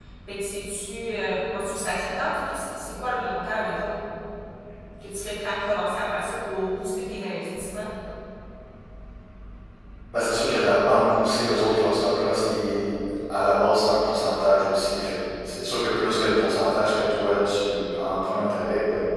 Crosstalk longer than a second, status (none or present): none